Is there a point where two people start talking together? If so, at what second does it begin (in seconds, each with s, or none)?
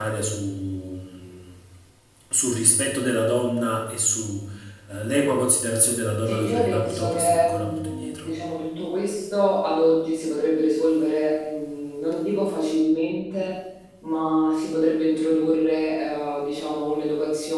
6.3 s